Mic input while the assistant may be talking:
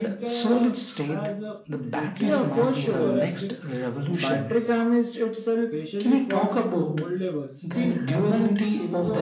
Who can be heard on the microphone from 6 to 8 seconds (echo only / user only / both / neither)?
both